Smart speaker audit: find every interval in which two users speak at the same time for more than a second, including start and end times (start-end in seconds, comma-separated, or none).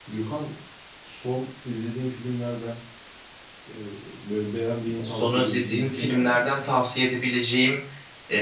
5.0-6.4